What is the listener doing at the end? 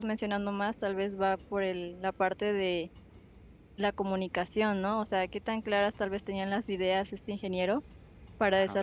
listening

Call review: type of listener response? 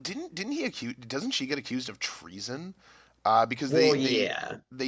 listening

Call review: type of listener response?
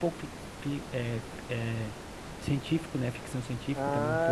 taking over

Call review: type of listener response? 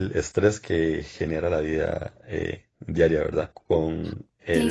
taking over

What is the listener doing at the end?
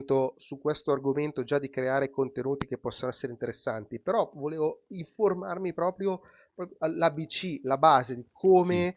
listening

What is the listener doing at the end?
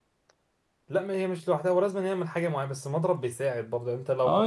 taking over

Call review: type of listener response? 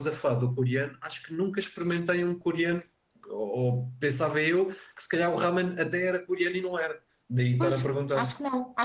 taking over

